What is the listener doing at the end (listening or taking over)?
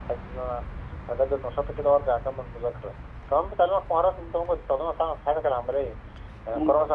listening